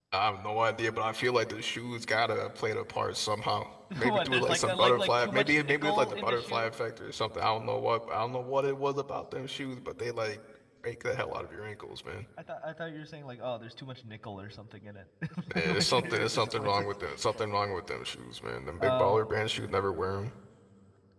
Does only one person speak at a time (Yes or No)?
No